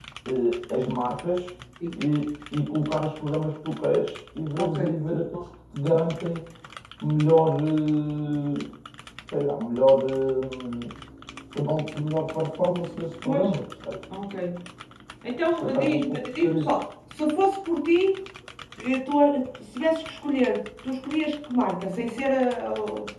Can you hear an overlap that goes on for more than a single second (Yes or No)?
Yes